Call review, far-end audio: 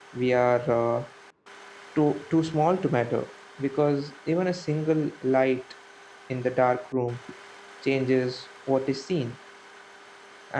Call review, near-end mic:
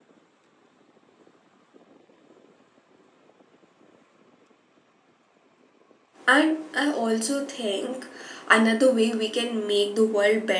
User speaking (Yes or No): Yes